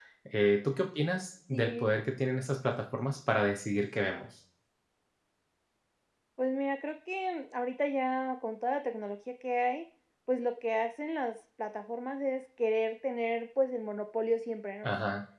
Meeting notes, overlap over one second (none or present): none